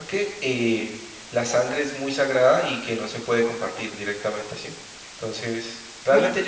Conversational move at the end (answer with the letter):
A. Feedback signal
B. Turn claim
A